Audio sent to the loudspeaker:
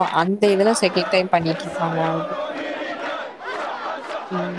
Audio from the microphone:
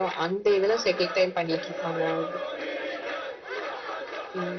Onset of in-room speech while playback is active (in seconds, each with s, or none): none